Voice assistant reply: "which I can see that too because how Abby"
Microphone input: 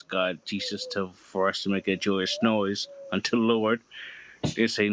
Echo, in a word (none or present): none